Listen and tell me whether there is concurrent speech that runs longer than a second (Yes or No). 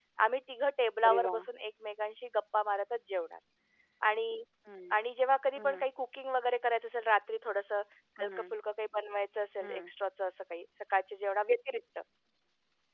No